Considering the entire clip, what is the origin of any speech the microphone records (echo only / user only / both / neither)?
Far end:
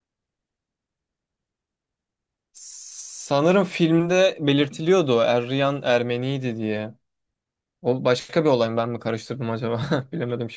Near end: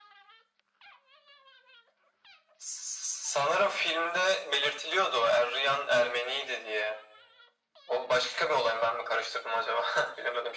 echo only